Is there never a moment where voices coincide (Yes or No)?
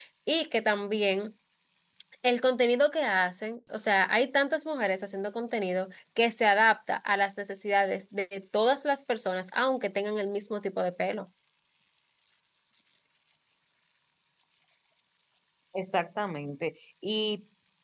Yes